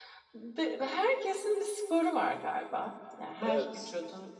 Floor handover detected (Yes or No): No